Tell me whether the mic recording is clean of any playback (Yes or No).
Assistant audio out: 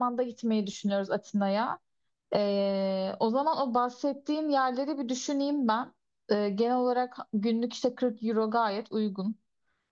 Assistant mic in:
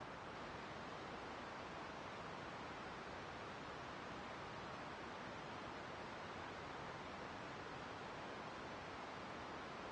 Yes